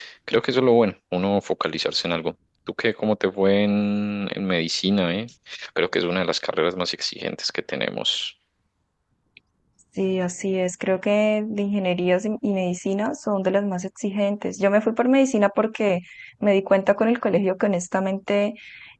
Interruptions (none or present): none